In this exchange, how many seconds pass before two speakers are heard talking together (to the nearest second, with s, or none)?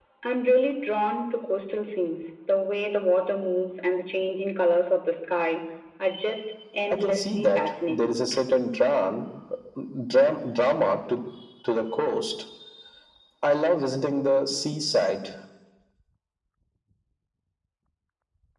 7 s